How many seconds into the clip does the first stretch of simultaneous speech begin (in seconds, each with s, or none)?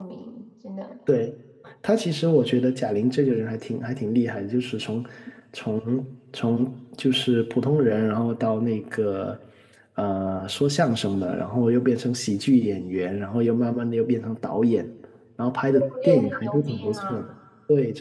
15.7 s